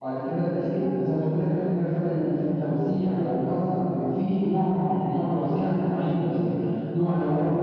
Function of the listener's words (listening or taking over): listening